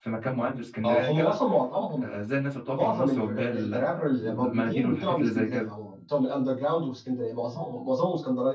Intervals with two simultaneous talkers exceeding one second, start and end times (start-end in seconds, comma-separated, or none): 2.7-5.7